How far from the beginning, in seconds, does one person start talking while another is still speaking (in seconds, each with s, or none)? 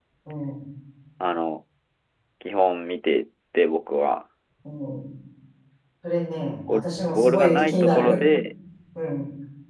6.7 s